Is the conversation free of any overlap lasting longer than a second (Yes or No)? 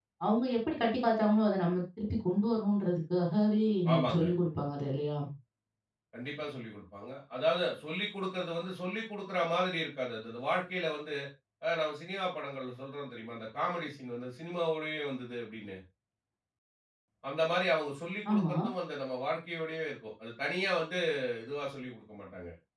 Yes